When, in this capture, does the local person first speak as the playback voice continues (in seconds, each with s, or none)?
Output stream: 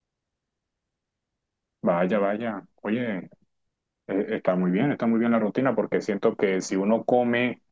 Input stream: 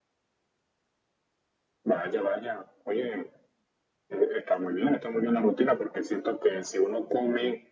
none